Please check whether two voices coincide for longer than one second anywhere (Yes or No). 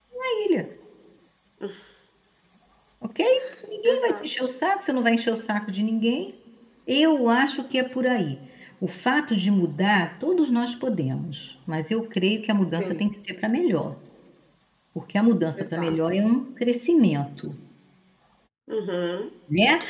No